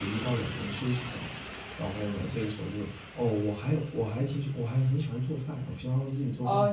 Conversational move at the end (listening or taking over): taking over